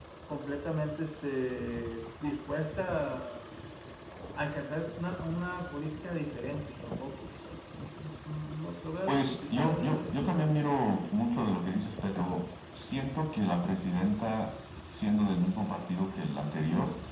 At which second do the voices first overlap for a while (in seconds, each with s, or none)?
9.1 s